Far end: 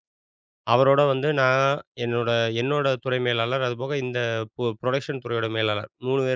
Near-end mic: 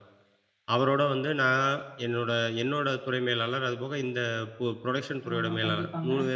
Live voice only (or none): ஆமா. கண்டிப்பாங்க.